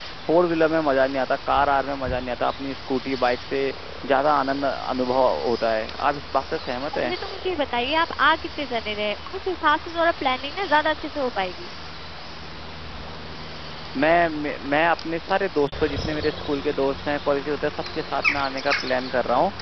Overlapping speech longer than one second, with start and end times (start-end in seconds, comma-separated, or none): none